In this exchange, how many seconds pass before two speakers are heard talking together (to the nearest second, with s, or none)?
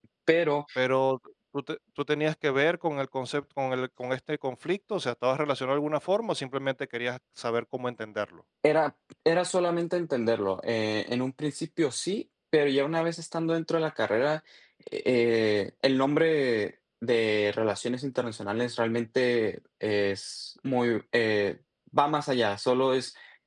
none